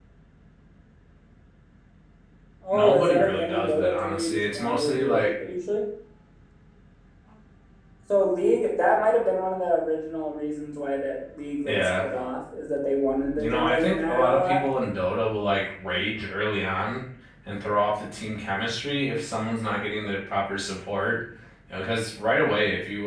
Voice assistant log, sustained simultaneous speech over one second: present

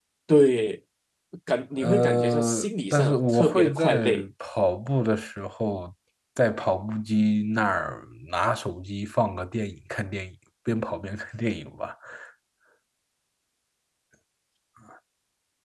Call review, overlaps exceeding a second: present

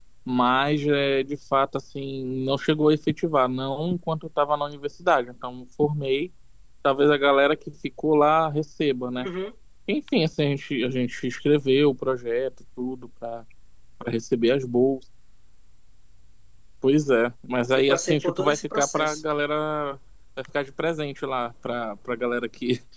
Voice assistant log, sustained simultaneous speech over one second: present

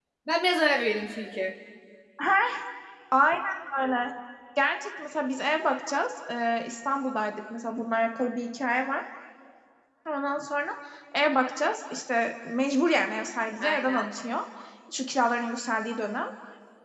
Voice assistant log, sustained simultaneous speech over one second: none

